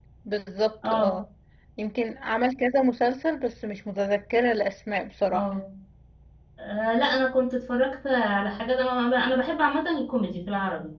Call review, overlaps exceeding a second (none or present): none